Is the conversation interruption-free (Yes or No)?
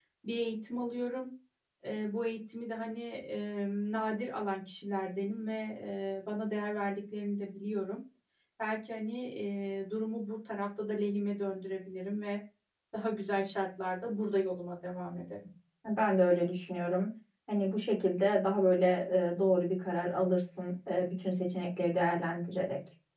Yes